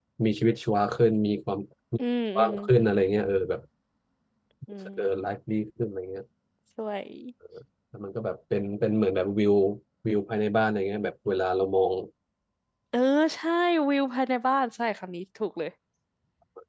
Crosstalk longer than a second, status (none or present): none